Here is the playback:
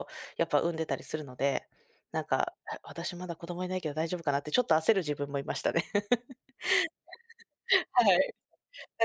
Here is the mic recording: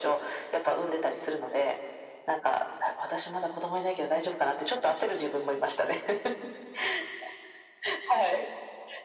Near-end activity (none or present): none